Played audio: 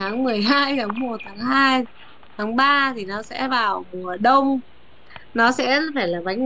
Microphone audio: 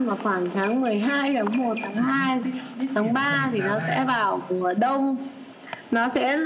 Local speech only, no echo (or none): em sẽ chỉ đích đích điểm thời điểm nào ra